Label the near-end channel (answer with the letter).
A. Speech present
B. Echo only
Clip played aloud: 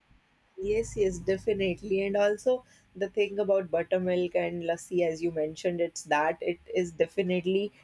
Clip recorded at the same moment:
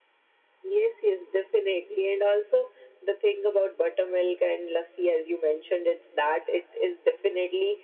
B